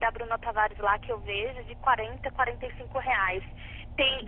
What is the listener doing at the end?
listening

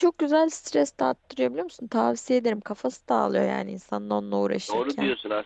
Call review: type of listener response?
taking over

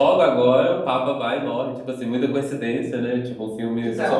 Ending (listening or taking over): listening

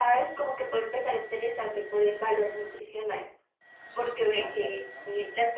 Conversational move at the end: listening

